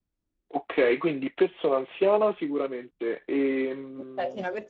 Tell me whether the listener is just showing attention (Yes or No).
No